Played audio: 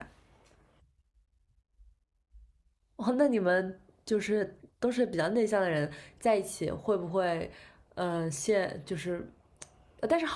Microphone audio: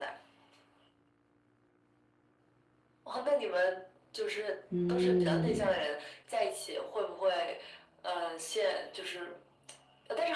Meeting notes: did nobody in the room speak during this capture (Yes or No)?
No